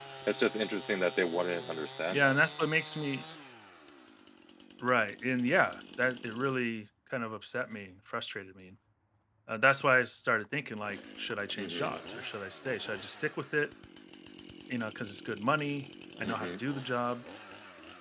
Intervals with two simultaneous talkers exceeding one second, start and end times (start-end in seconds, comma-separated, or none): none